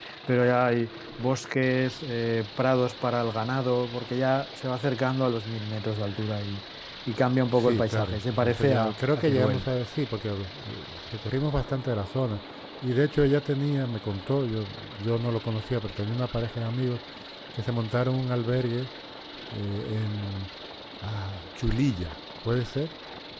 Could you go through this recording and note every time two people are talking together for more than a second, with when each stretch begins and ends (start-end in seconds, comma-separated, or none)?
7.6-9.7